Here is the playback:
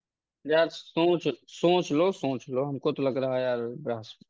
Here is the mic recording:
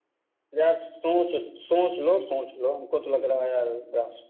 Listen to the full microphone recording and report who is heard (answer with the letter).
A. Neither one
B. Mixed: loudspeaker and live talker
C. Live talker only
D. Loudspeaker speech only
D